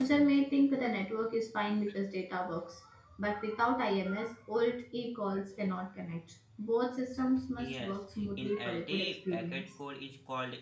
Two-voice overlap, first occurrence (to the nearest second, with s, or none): 8 s